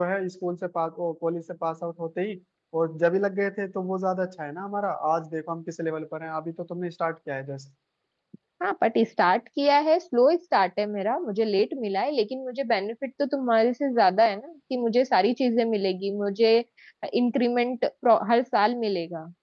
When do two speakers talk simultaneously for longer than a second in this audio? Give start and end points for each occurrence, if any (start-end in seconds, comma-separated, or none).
none